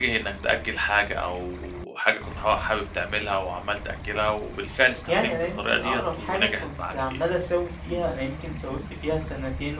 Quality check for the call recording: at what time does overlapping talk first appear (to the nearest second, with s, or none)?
5 s